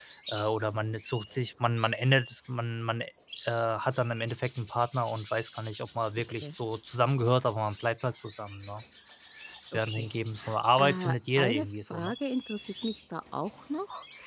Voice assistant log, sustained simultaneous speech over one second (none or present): present